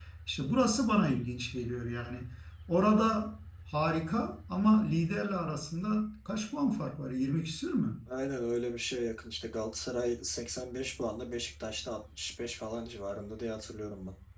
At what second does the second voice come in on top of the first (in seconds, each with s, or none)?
none